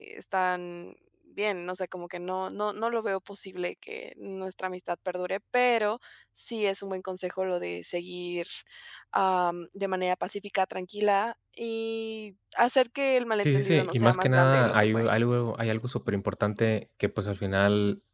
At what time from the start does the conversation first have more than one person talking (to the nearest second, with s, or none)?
13 s